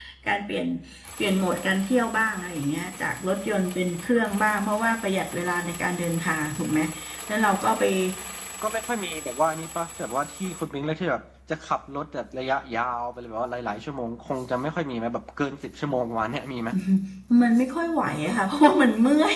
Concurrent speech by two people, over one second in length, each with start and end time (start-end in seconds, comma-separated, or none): none